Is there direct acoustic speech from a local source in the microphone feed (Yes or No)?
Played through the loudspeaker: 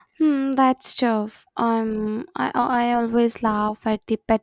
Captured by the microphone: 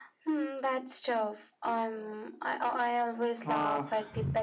Yes